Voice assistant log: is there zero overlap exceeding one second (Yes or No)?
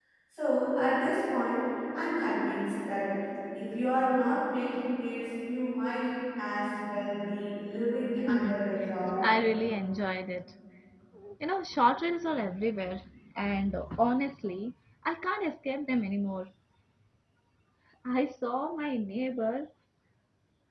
Yes